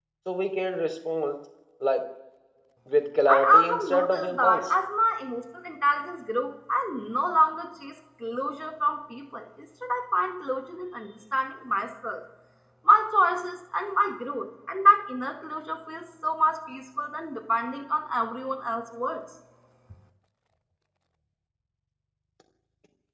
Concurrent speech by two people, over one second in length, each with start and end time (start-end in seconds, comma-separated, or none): 3.3-4.7